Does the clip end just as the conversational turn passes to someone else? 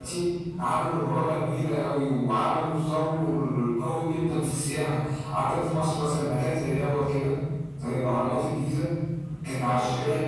No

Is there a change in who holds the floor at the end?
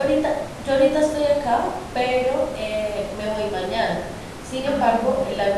No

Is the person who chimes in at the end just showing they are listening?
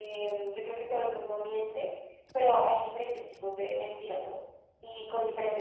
Yes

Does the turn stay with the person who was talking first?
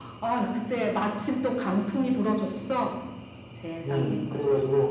No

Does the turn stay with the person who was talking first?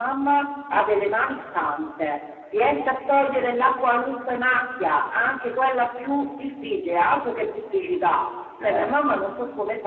Yes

